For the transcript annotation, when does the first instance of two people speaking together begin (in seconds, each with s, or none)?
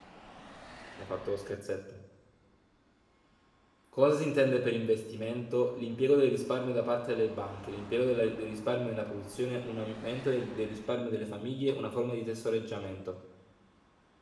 none